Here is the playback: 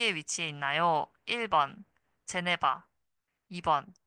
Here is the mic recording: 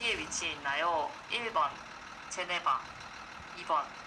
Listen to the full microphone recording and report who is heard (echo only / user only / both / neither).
echo only